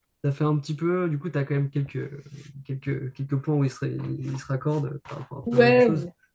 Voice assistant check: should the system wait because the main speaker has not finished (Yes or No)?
No